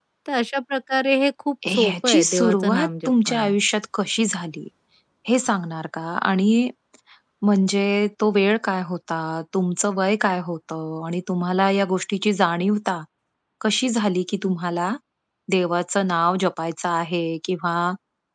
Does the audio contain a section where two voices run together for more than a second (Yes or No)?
Yes